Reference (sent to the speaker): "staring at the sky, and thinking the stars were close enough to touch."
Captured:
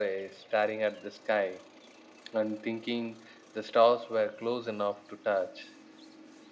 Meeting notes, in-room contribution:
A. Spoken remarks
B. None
B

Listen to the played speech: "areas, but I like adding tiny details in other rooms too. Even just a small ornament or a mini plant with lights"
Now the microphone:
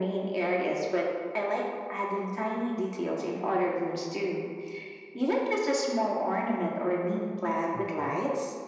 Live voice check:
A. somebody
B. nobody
A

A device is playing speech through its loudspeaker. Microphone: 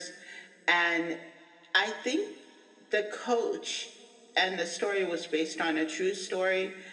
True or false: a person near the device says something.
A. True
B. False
B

